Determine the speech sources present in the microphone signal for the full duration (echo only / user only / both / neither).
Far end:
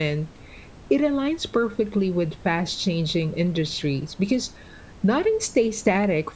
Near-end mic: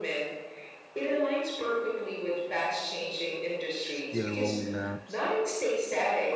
both